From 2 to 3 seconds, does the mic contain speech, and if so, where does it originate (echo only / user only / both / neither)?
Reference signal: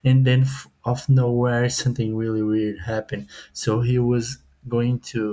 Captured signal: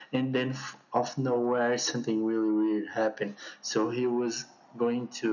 echo only